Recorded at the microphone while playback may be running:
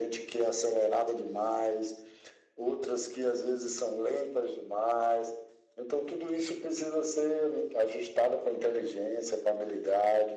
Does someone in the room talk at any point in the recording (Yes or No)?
No